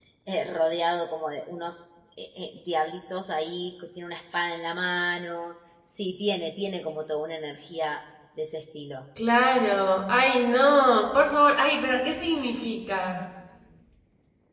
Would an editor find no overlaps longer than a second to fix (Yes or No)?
Yes